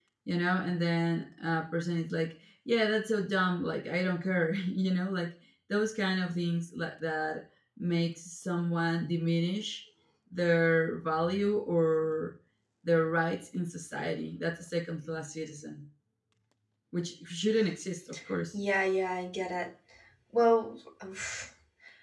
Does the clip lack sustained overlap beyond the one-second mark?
Yes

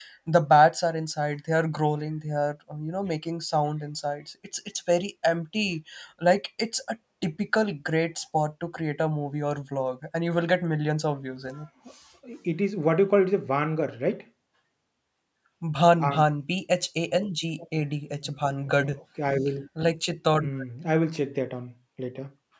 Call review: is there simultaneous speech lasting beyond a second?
No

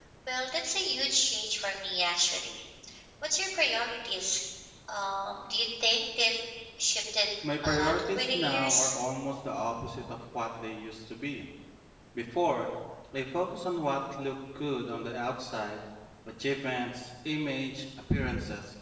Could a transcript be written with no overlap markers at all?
No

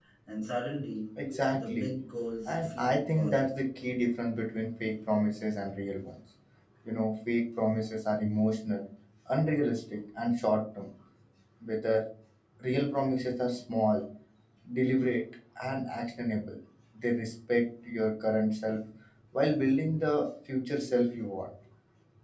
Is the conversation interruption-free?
No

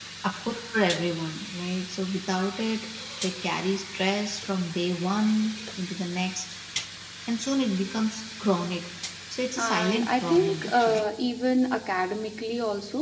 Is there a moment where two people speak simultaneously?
Yes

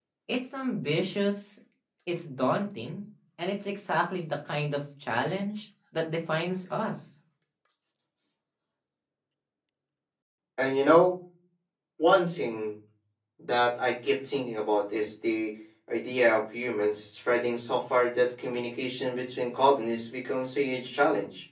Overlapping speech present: No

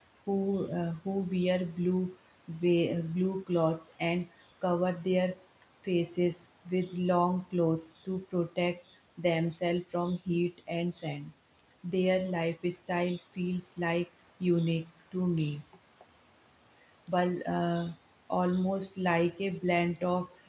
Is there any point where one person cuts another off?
No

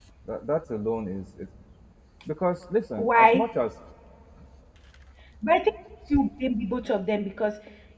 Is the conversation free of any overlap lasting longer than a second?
Yes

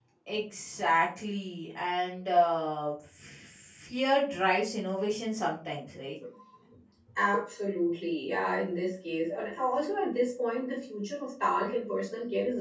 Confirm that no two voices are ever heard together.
Yes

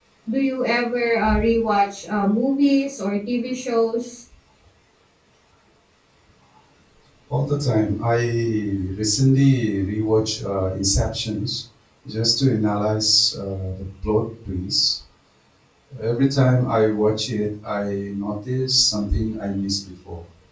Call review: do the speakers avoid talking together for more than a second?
Yes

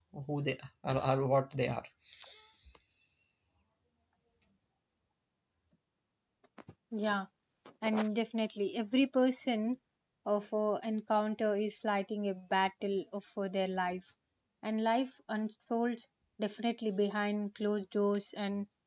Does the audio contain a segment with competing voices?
No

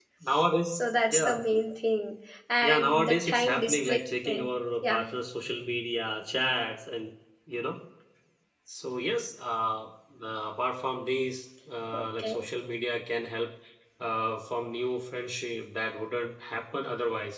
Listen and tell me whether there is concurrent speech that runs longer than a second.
Yes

